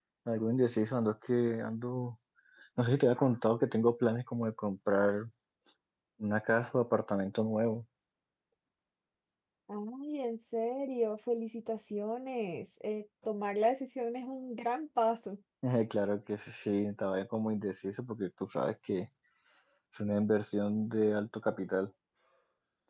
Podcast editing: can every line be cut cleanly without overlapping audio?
Yes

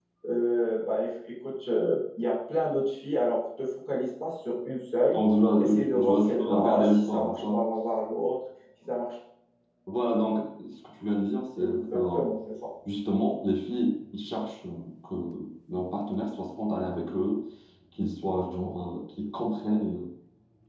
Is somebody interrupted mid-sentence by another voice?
Yes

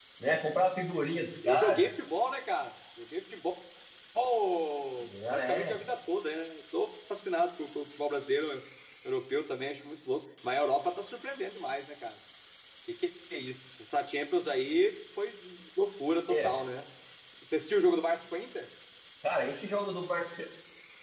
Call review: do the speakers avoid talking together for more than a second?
Yes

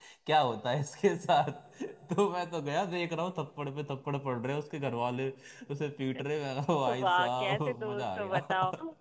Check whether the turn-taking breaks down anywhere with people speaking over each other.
Yes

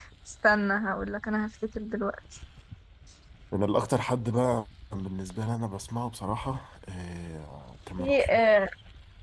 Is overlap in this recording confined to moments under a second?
Yes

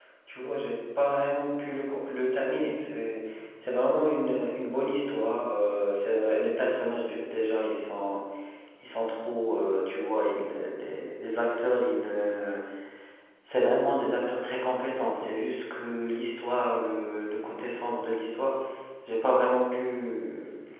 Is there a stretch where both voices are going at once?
No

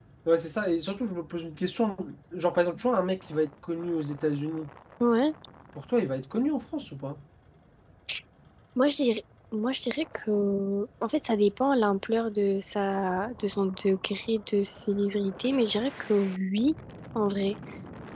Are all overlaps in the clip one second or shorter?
Yes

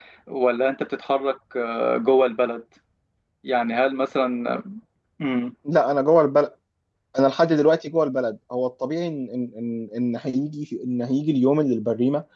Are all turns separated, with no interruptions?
Yes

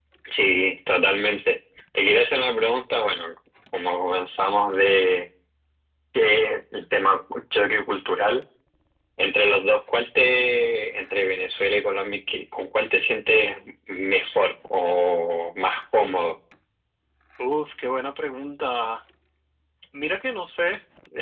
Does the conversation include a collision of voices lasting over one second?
No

